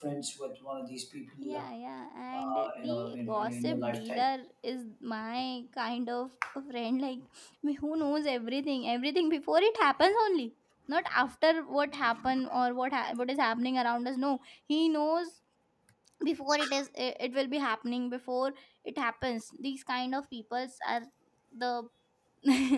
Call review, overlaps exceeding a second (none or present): present